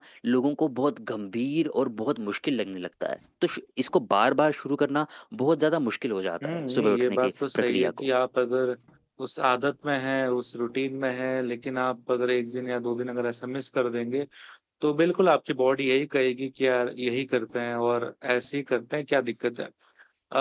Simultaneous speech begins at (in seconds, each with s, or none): 6.4 s